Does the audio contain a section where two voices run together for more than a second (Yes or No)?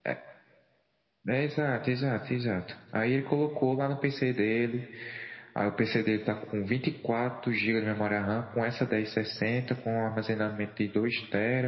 No